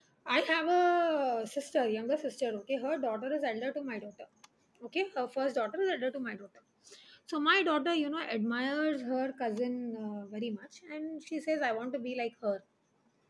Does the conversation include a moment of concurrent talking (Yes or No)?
No